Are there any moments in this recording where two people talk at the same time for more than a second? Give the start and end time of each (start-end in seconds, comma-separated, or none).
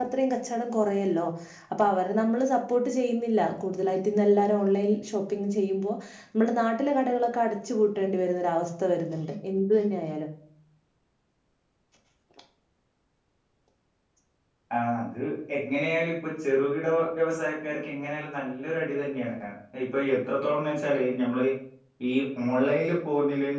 none